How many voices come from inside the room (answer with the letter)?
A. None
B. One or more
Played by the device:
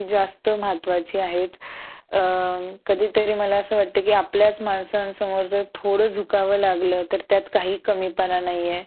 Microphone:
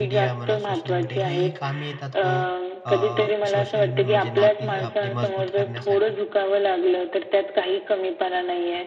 B